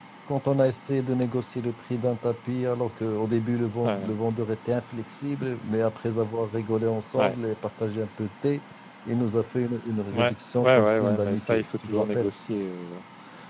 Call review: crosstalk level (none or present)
present